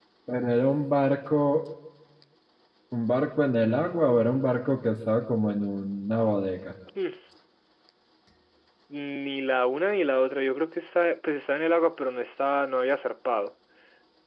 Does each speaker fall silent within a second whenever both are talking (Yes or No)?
Yes